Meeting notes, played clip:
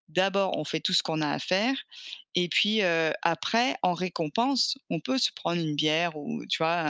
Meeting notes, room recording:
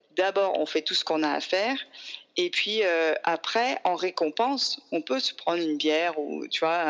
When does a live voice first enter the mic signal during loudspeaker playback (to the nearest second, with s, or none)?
none